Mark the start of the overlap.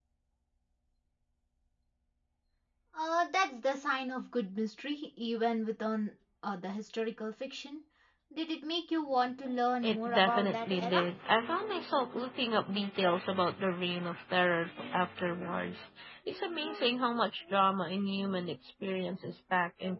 10 s

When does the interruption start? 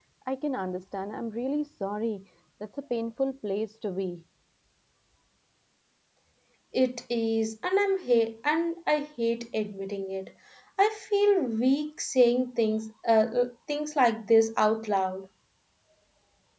none

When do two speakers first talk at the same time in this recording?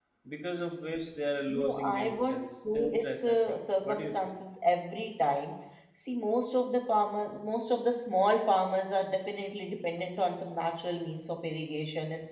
1 s

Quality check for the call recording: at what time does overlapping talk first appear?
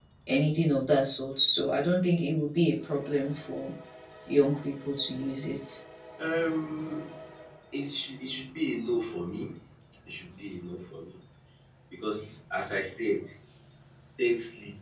none

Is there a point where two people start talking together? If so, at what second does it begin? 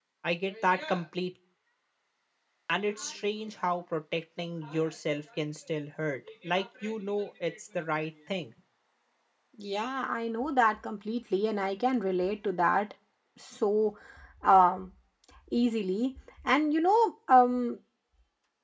none

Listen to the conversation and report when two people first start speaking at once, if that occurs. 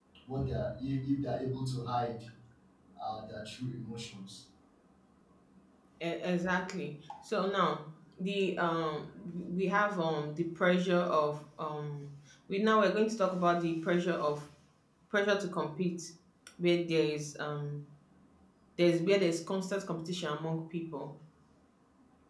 none

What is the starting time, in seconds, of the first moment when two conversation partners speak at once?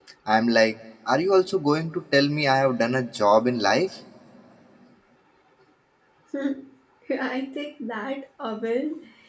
none

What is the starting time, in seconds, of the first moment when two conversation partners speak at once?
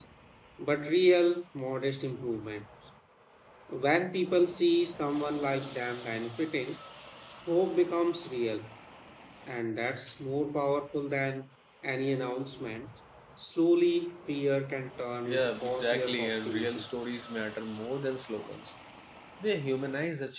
15 s

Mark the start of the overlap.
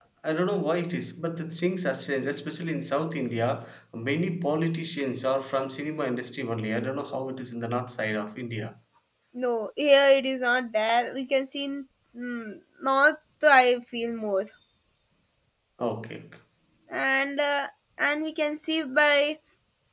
none

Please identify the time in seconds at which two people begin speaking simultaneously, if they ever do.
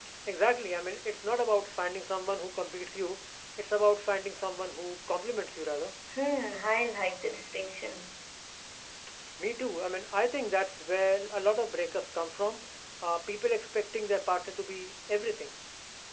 none

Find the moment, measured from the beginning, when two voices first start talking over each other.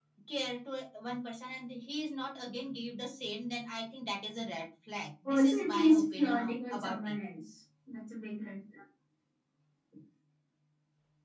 5 s

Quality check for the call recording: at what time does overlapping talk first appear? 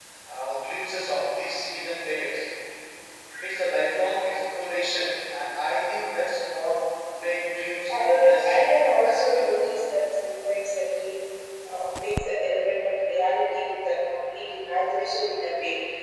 8 s

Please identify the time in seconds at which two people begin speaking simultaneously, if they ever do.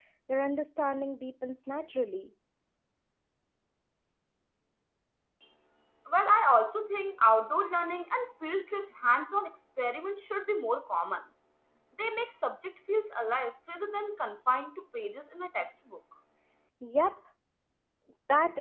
none

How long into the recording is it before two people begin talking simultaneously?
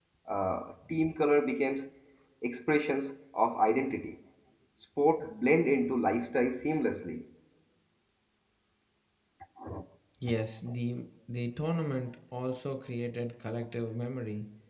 none

